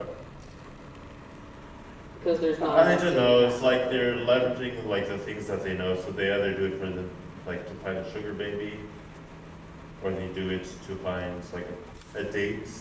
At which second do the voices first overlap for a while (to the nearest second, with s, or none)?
3 s